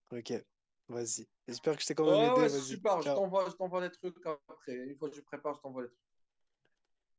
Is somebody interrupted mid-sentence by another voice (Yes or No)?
Yes